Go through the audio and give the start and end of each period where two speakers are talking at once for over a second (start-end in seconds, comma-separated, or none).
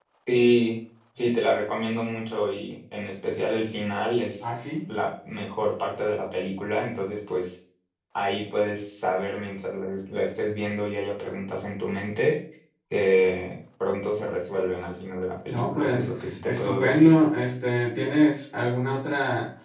15.5-17.1